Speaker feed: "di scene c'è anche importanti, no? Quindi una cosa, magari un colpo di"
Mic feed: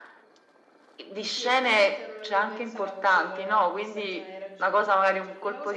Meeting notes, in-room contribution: present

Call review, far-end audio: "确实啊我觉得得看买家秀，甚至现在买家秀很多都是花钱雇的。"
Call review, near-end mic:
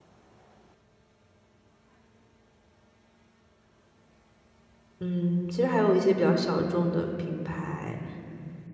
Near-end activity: present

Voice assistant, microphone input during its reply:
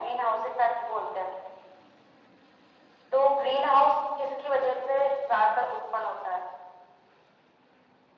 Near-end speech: none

